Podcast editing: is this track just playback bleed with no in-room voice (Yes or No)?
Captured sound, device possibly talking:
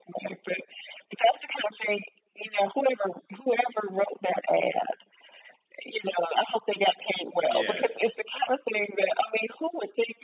No